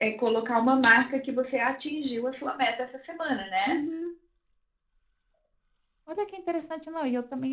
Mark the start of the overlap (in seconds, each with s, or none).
none